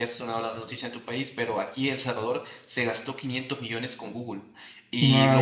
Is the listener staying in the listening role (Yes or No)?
Yes